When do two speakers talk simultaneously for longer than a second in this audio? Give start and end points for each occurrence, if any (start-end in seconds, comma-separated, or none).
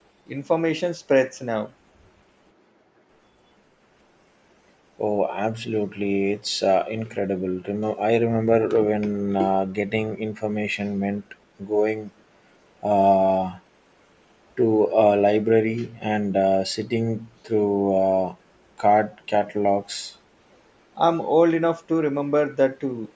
none